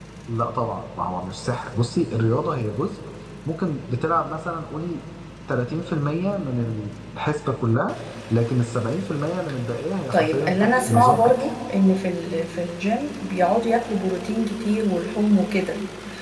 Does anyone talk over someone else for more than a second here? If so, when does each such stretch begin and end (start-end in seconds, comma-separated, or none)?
10.1-11.4